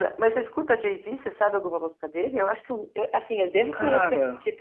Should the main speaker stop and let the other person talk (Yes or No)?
No